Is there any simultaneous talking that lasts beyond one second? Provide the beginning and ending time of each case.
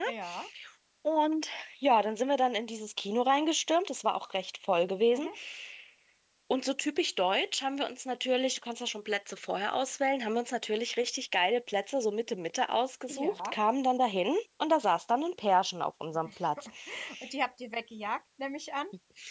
none

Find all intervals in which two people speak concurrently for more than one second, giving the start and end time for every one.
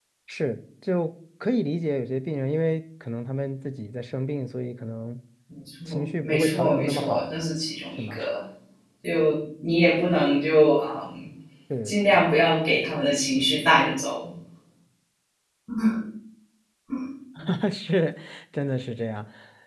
5.9-7.4

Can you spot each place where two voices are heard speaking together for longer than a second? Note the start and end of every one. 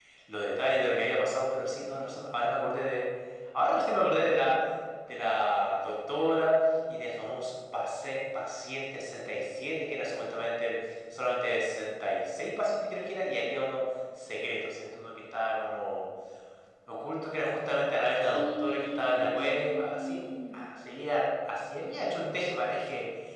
18.3-20.6

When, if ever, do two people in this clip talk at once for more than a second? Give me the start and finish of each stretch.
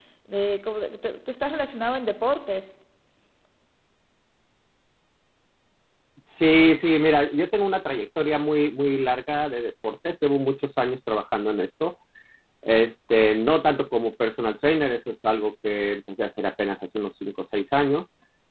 none

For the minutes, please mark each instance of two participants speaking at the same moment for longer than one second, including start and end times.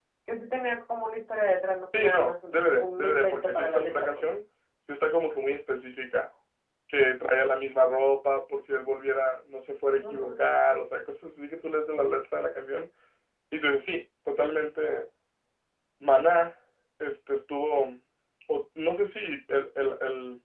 2.0-4.2

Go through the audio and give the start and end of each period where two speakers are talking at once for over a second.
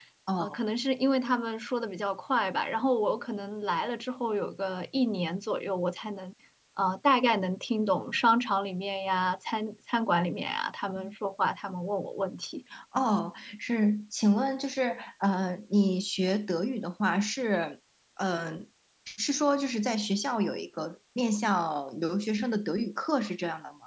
none

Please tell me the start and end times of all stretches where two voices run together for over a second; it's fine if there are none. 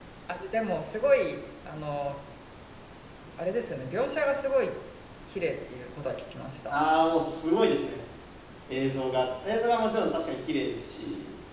none

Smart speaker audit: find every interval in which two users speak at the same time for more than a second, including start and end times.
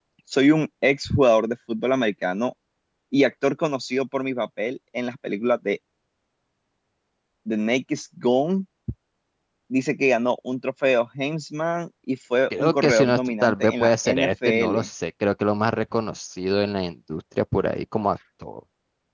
12.6-14.9

